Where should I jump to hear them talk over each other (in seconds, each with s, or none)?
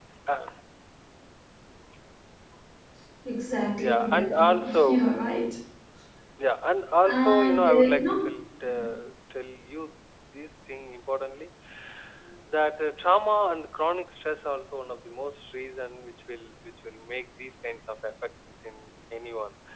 3.8 s